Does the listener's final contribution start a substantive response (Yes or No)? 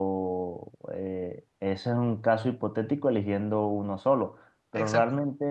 No